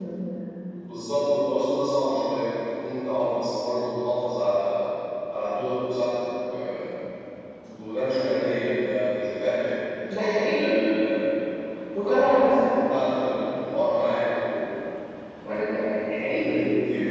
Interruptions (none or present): present